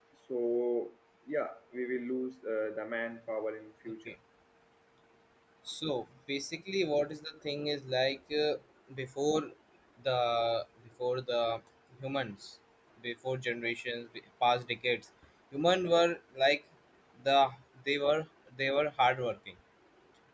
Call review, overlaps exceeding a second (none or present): none